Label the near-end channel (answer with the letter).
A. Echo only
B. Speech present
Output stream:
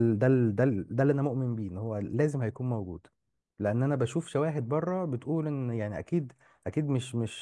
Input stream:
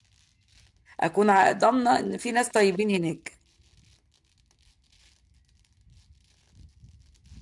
B